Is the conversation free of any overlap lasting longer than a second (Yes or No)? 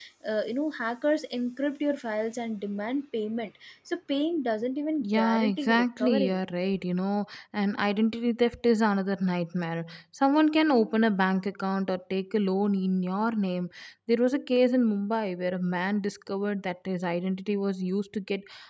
No